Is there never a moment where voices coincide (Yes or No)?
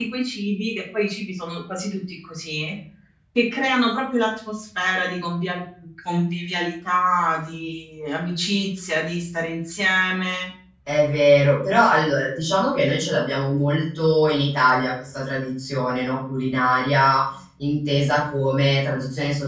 Yes